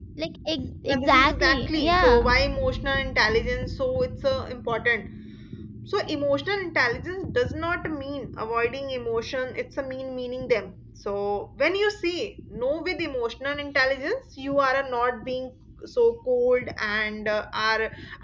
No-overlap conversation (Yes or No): No